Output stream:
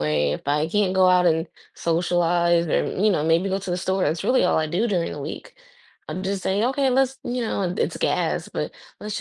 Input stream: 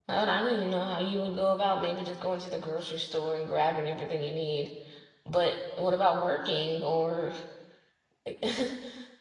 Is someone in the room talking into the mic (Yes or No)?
Yes